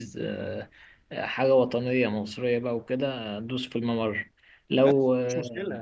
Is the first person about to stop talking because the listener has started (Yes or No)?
Yes